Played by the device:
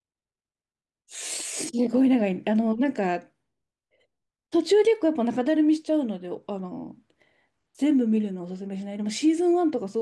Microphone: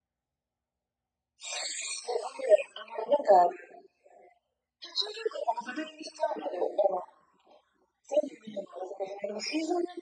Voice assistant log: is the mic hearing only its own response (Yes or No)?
Yes